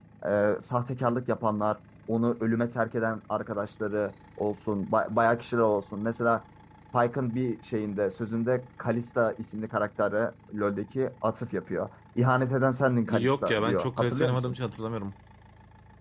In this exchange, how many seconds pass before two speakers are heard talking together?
13 s

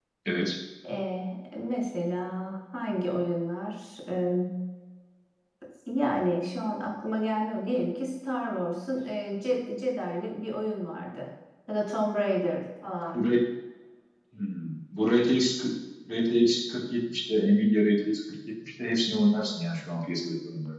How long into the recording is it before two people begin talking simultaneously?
none

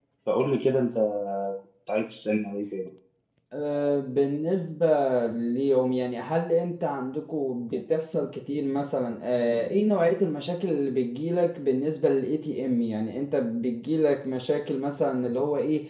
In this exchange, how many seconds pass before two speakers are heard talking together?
none

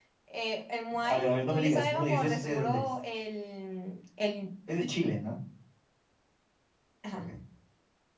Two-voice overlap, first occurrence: 1 s

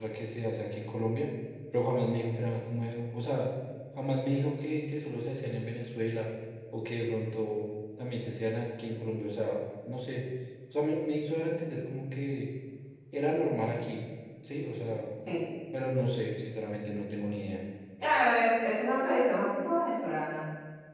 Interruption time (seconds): none

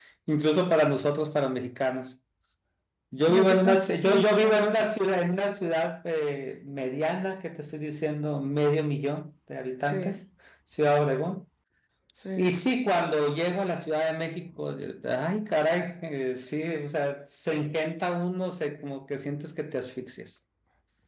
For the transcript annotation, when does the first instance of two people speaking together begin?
3 s

